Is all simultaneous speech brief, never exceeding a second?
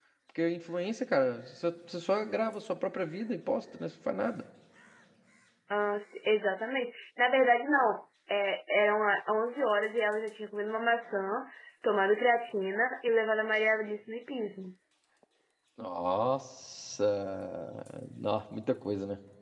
Yes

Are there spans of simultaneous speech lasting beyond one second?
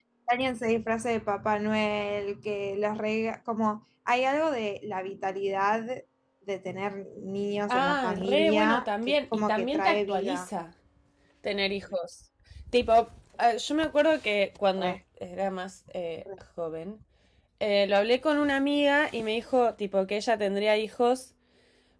Yes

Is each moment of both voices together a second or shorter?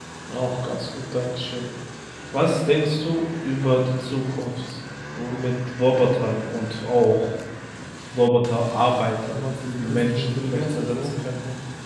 No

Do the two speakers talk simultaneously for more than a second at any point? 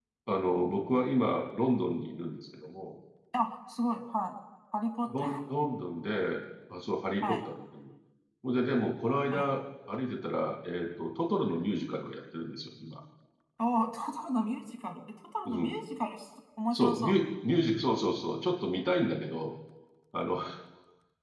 No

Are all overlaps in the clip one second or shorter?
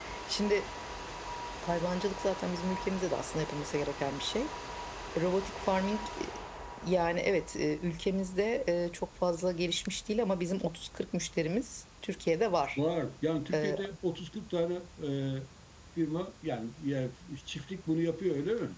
Yes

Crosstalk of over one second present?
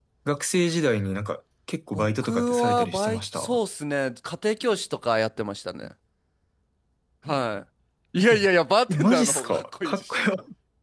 Yes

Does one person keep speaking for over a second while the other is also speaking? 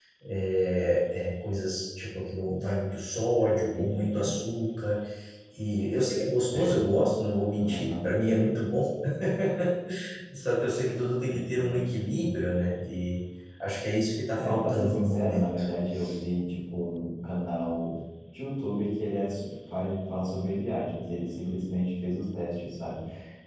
Yes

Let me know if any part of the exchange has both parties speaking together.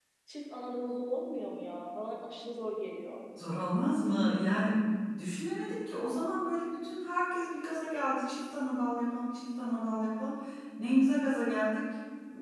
No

